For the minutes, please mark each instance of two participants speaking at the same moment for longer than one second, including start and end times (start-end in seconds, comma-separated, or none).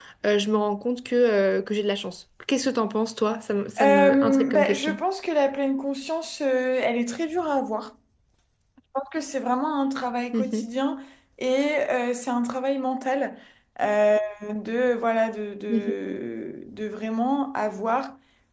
3.8-5.0